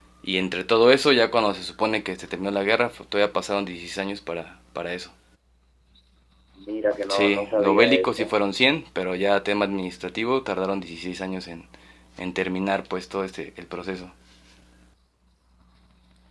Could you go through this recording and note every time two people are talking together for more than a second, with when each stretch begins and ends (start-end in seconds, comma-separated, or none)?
7.1-8.3